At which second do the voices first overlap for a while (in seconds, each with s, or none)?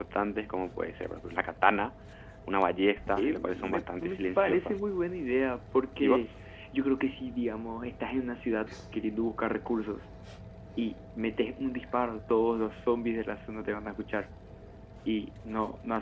3.2 s